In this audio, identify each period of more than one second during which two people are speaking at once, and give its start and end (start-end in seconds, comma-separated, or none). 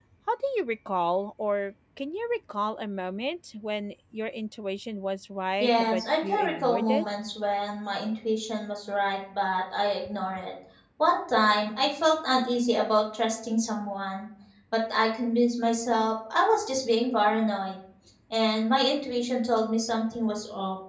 5.6-7.0